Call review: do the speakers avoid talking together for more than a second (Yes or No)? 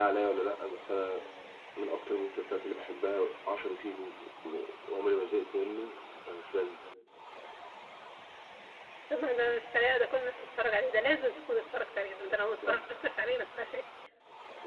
Yes